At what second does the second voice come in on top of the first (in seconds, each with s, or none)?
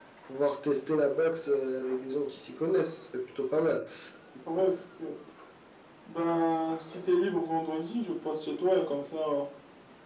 none